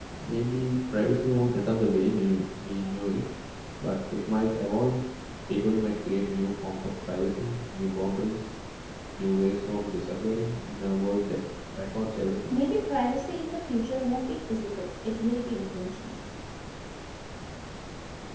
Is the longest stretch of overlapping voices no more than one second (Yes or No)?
Yes